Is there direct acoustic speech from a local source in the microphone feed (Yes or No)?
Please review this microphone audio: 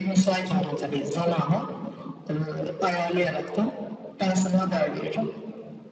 No